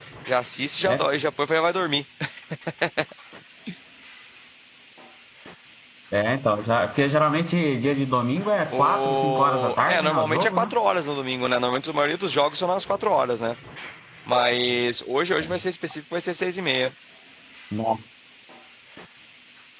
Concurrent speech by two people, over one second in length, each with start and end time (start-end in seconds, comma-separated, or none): 8.7-10.7